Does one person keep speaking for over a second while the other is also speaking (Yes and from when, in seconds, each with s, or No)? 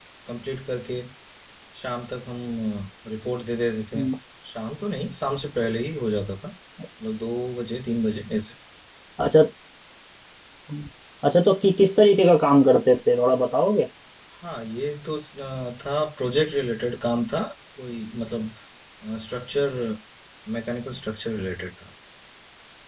No